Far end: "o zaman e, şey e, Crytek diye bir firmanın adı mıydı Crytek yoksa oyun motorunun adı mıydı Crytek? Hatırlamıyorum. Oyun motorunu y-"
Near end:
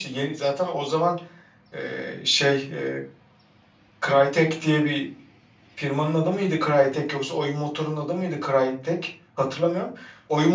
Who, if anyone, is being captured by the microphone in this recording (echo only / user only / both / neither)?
echo only